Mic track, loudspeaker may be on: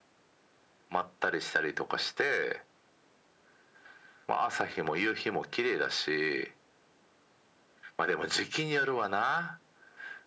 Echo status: present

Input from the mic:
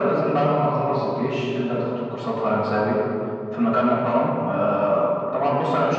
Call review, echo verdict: present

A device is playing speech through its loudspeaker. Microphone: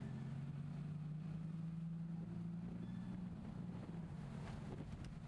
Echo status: none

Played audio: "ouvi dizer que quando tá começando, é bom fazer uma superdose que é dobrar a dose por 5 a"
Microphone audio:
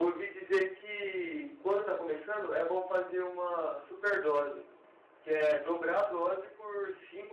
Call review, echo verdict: present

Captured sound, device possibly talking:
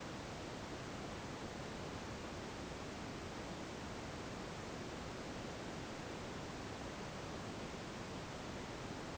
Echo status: none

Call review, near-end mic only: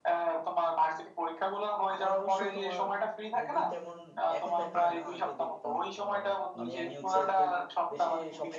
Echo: present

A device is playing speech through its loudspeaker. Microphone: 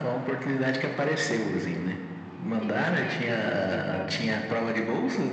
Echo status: present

